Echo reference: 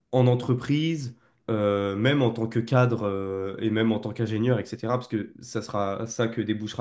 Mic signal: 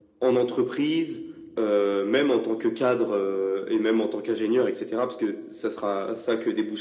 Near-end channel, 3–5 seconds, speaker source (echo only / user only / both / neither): echo only